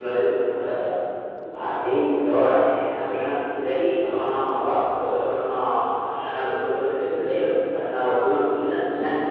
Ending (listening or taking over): listening